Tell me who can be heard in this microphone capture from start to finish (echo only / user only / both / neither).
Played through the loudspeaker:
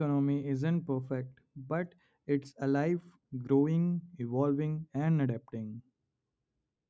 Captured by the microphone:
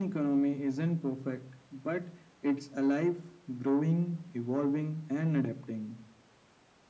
echo only